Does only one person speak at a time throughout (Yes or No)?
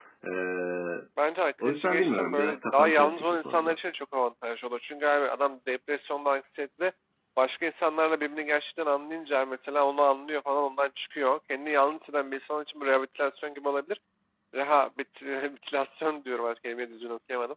No